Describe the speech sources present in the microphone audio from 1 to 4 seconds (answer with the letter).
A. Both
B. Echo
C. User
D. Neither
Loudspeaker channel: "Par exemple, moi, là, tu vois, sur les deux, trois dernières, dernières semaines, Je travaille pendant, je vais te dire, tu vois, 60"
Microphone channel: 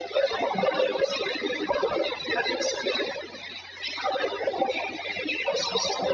B